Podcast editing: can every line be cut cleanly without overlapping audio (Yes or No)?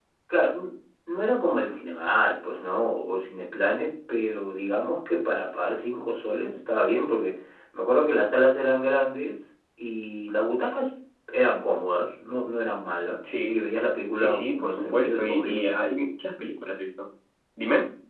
No